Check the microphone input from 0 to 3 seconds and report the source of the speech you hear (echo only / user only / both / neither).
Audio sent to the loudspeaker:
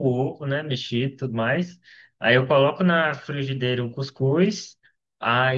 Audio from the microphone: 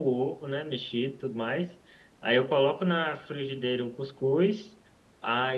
echo only